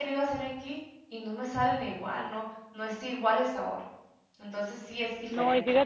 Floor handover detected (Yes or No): Yes